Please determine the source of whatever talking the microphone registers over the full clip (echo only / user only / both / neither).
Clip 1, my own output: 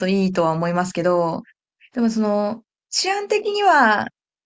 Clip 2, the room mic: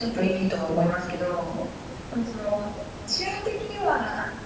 echo only